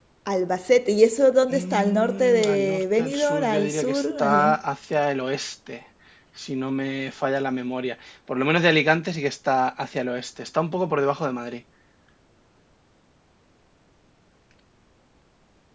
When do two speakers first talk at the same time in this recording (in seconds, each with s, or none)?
1.5 s